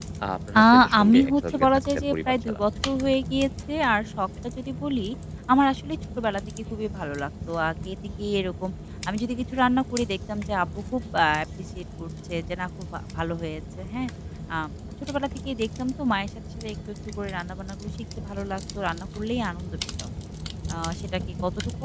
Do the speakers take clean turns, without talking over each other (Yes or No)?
No